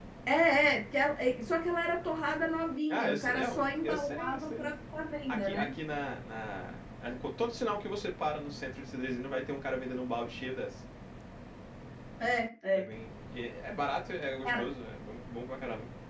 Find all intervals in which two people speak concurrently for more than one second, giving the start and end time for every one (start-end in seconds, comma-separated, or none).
2.9-4.7